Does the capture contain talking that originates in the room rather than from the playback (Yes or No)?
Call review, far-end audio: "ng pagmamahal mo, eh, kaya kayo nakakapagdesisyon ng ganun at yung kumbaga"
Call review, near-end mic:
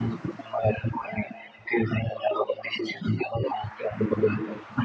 No